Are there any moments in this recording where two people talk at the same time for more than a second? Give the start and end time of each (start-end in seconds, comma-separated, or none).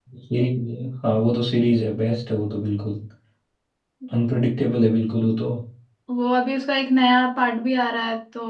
none